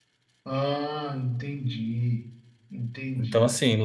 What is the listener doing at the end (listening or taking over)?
taking over